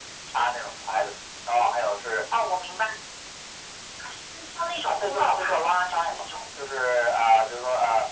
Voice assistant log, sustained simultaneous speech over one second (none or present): present